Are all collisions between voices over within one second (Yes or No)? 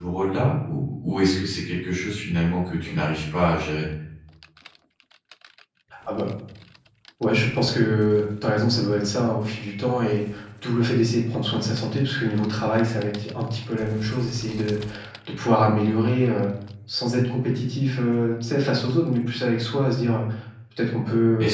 Yes